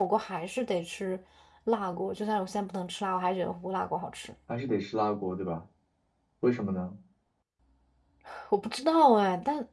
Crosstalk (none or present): none